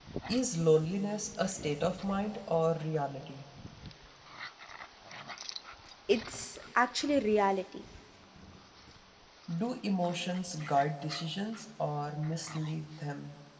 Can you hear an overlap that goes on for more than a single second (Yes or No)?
No